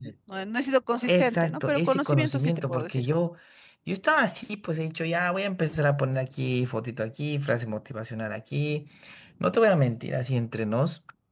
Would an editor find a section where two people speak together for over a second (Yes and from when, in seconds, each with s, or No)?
Yes, from 1.1 s